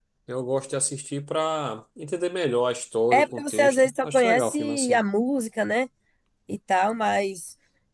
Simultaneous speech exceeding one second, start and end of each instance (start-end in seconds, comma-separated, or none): 3.1-5.0